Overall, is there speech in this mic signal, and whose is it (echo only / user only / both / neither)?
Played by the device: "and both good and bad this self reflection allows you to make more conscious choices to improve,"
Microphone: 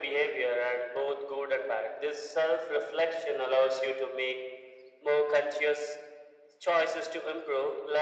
echo only